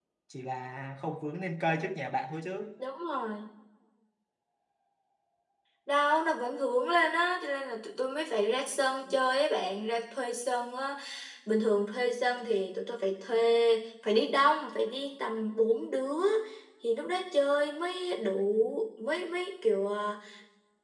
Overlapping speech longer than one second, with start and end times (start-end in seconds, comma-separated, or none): none